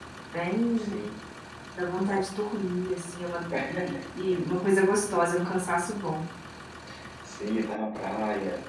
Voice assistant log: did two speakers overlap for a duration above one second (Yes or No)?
No